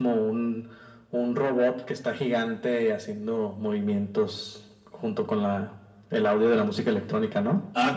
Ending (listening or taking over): taking over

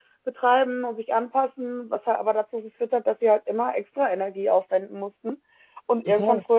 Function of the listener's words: listening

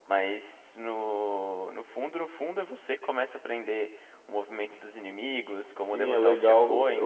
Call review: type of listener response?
taking over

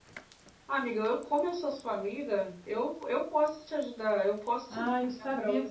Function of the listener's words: taking over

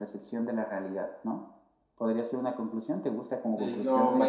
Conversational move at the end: taking over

